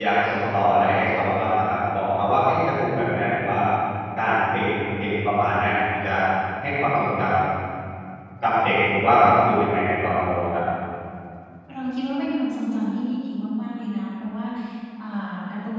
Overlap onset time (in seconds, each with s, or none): none